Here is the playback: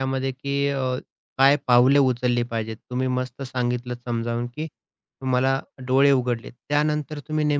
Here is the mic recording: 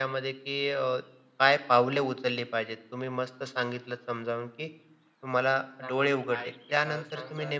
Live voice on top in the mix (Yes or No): No